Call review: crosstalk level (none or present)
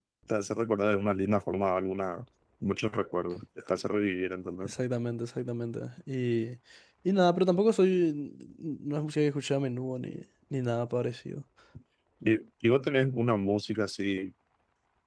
none